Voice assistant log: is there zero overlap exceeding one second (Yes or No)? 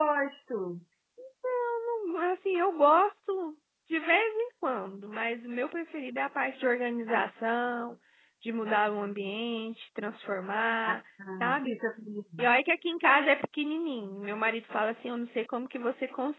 Yes